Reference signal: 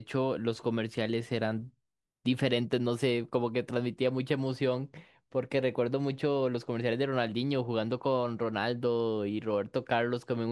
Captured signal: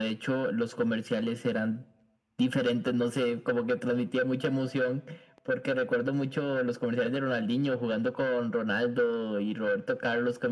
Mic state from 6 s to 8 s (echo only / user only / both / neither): echo only